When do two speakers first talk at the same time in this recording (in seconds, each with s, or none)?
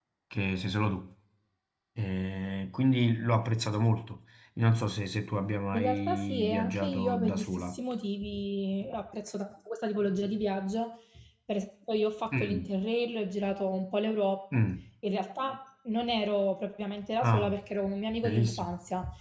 5.7 s